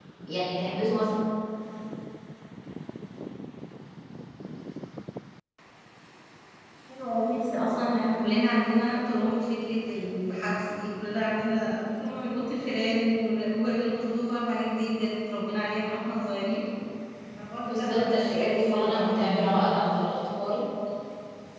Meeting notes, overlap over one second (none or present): present